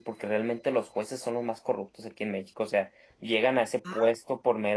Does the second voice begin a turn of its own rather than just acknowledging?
No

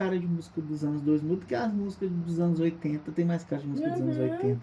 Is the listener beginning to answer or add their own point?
Yes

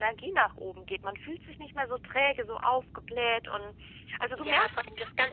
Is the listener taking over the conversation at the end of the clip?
Yes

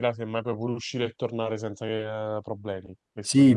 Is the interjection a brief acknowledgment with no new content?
No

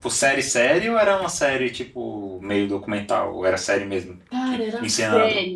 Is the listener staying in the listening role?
No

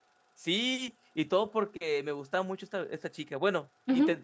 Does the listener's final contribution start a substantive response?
Yes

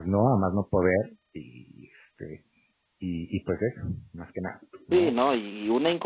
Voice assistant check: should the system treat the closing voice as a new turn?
Yes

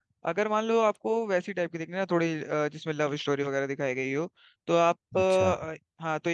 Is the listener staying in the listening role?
Yes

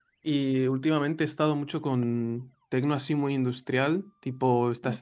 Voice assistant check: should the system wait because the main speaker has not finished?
Yes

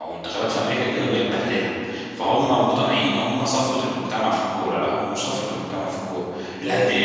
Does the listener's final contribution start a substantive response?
No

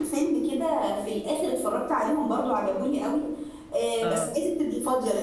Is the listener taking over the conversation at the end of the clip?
No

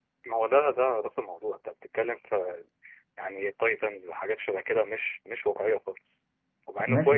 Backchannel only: No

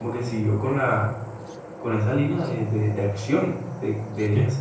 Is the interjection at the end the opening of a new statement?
No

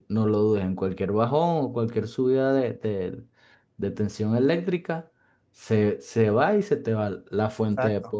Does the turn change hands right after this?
No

